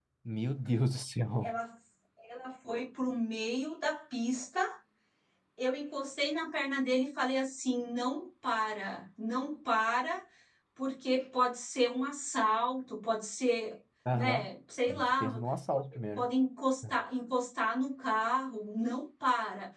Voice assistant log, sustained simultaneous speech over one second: none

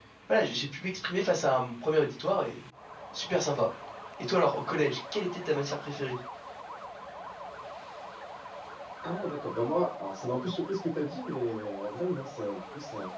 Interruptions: none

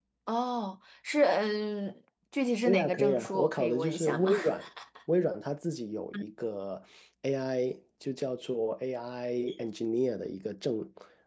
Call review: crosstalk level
present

